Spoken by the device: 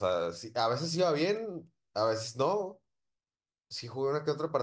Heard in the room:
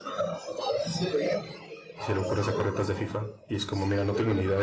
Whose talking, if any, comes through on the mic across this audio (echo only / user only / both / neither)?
both